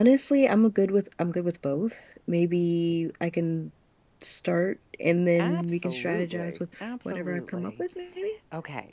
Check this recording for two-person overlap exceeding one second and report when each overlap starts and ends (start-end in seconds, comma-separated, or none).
5.4-7.8